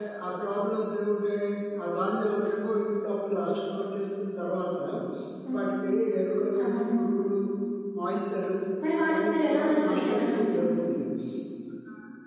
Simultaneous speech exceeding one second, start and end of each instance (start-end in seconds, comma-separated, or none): 8.9-10.6